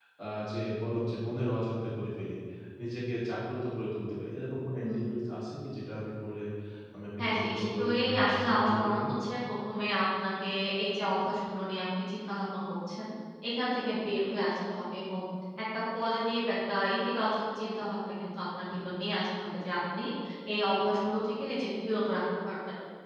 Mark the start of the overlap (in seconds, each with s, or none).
7.2 s